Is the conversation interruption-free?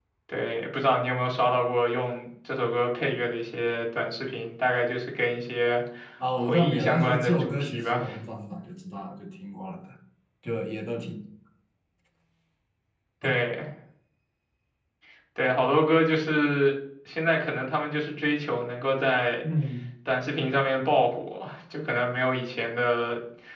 No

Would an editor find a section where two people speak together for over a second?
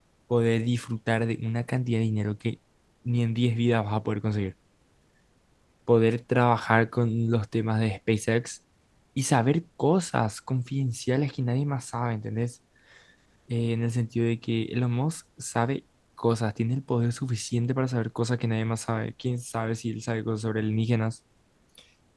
No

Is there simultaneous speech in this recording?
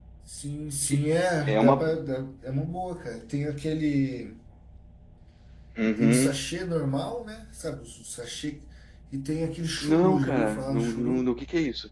Yes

